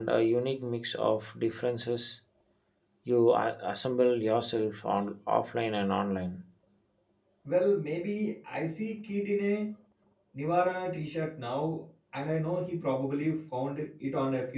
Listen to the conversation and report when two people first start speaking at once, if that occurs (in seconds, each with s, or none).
none